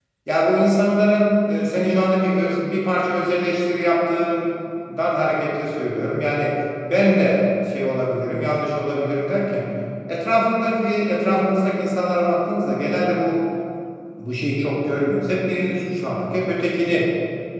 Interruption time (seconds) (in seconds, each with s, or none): none